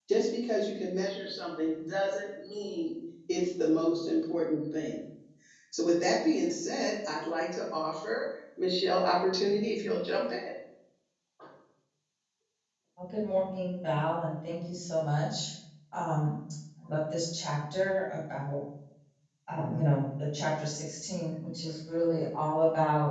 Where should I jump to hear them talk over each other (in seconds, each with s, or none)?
none